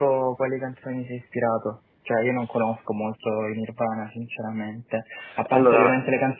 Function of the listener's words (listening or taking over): listening